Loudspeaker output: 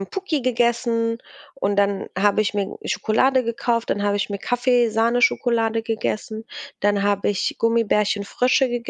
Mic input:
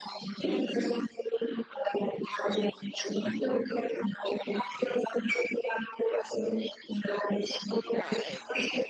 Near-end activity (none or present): present